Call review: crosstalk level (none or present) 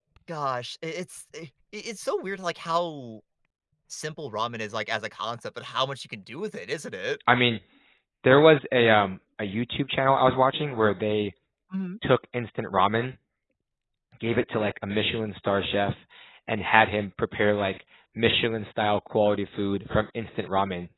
none